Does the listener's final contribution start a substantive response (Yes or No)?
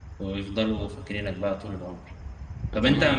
No